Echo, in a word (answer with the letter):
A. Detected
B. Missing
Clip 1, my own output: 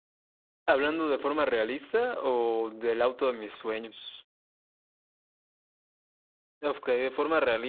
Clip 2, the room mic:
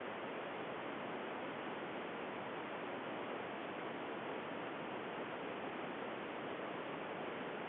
B